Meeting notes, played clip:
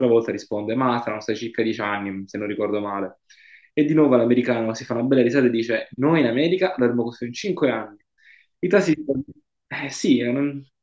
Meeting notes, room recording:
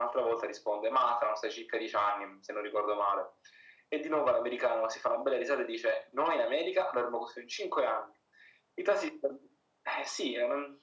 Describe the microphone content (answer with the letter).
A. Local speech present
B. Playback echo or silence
B